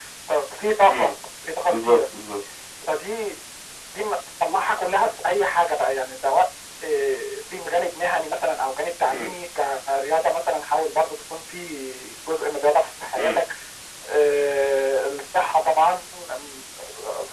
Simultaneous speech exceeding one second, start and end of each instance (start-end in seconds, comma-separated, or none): none